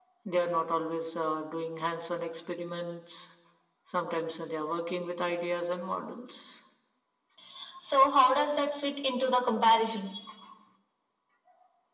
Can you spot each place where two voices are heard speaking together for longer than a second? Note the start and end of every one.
none

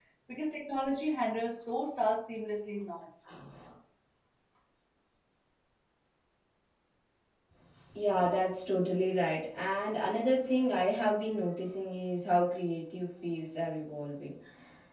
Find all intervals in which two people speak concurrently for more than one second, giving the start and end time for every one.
none

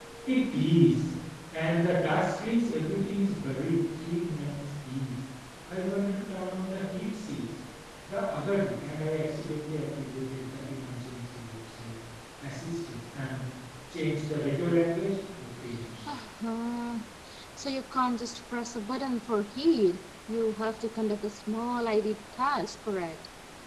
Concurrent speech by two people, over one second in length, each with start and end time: none

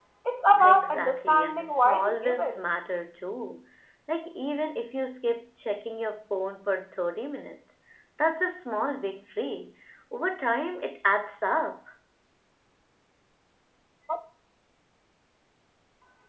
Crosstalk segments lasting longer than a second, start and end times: 0.6-2.6

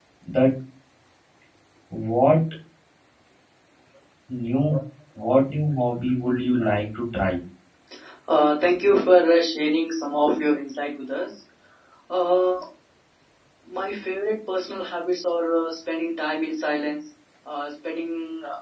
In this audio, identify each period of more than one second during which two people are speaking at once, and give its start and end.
none

